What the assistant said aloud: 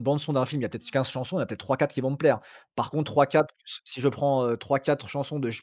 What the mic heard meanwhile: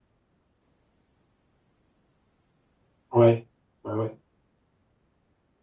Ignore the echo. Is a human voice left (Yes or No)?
Yes